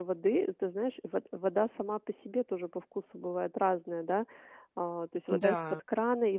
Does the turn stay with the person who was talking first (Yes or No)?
Yes